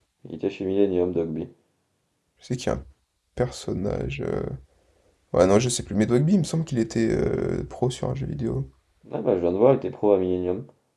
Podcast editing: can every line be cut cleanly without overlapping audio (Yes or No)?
Yes